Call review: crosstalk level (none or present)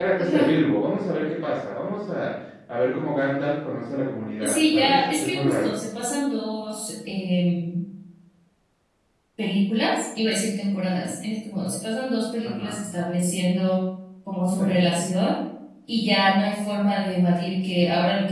present